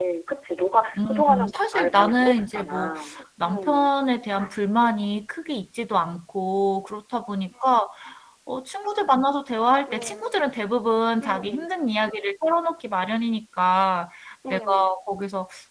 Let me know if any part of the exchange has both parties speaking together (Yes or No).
Yes